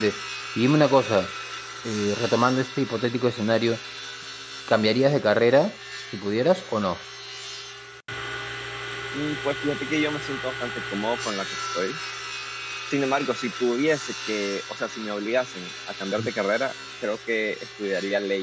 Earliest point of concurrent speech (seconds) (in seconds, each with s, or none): none